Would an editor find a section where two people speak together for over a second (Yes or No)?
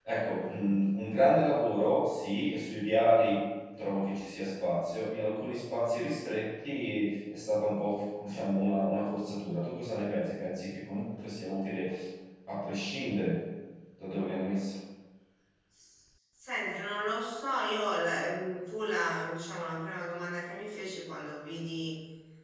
No